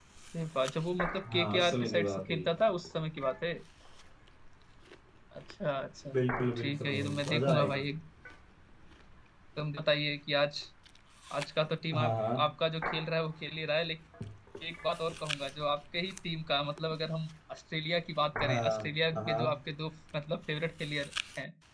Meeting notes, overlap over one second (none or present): present